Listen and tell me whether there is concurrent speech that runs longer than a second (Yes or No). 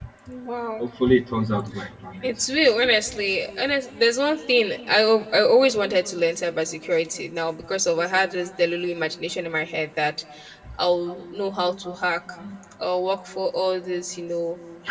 No